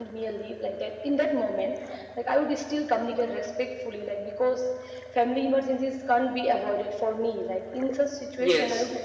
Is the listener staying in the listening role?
Yes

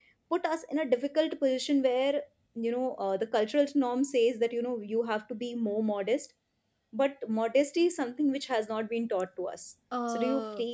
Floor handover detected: Yes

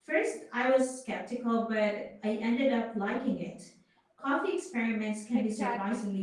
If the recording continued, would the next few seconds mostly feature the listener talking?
Yes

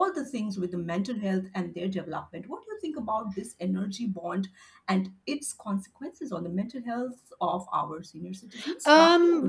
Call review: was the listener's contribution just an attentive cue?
No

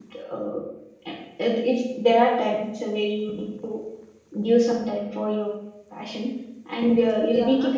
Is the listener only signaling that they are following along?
Yes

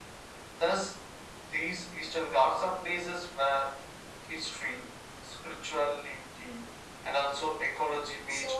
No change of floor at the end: No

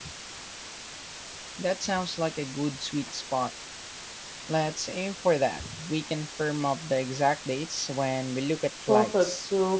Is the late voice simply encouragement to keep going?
No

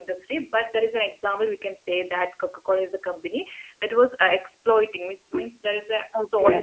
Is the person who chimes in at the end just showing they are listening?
No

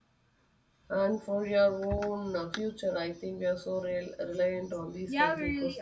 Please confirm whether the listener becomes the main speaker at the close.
Yes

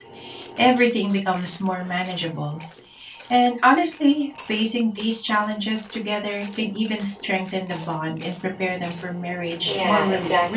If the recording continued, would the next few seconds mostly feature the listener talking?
Yes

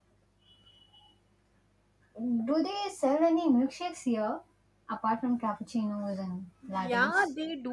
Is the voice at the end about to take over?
Yes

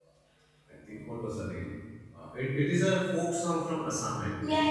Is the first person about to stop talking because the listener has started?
Yes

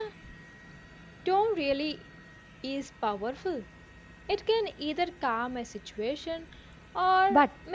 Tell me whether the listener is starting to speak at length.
Yes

